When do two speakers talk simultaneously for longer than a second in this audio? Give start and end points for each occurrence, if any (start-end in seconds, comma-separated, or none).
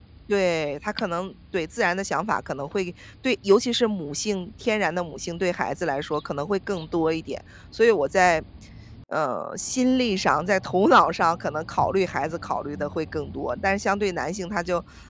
none